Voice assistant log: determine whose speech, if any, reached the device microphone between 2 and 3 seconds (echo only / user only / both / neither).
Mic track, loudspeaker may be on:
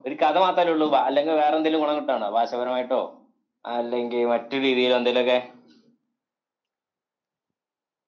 echo only